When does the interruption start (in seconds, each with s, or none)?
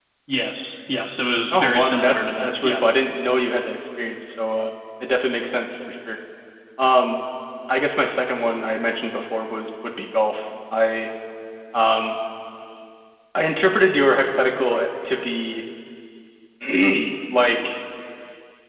1.5 s